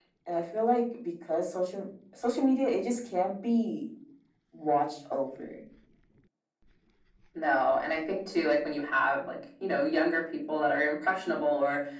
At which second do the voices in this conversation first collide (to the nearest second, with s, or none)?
none